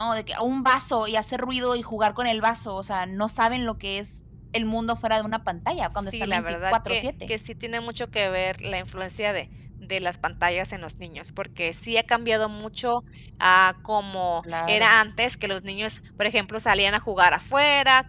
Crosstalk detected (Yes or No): Yes